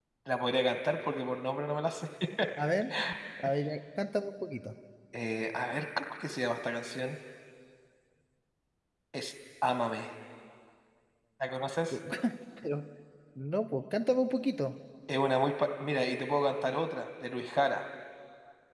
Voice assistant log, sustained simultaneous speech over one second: none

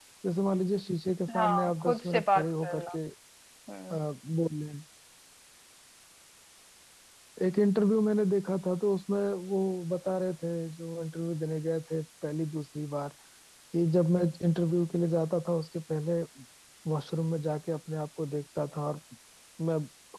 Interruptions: present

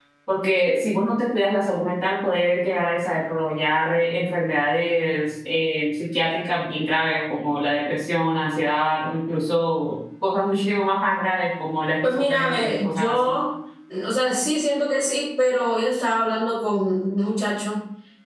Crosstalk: present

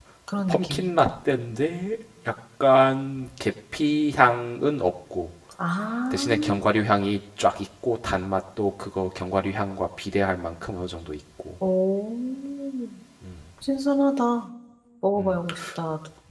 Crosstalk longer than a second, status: none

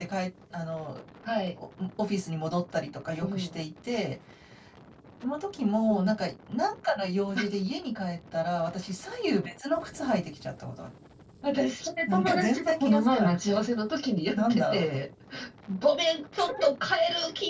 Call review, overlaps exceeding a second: present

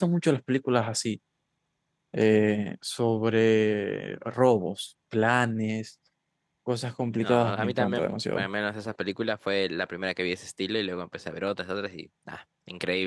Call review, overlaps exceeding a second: present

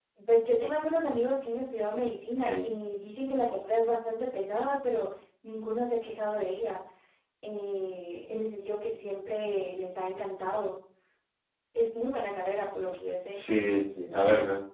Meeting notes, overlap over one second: none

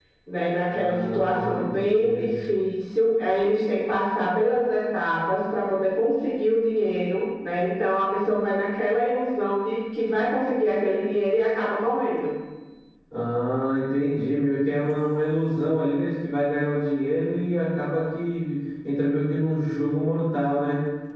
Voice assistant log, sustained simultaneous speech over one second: present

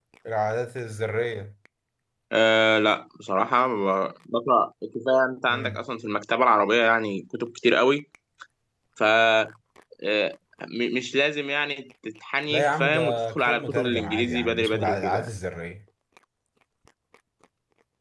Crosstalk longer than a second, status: present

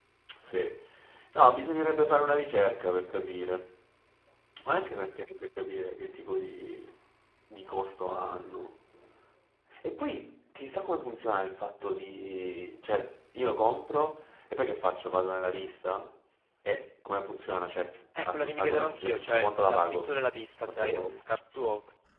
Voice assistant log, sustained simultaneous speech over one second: present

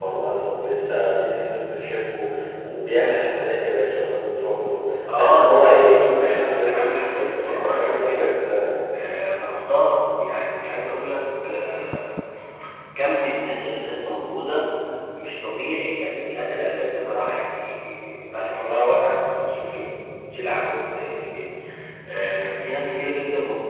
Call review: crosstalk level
present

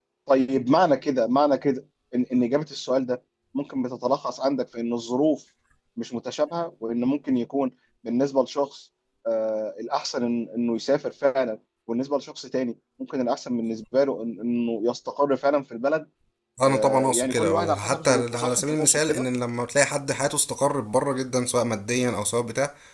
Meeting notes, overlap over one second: present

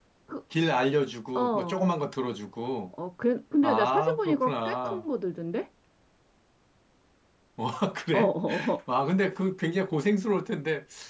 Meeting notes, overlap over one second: present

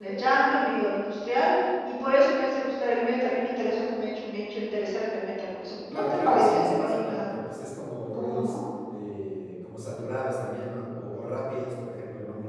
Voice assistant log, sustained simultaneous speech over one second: present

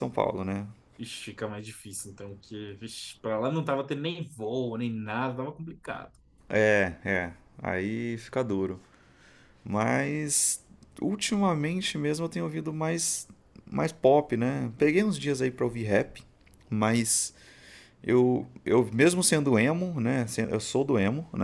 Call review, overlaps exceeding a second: none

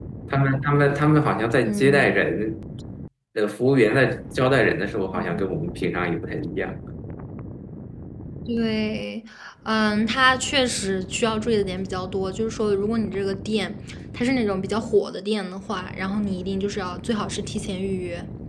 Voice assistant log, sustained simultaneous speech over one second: none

